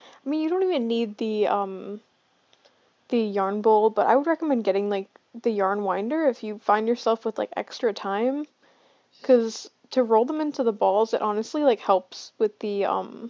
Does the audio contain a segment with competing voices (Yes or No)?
No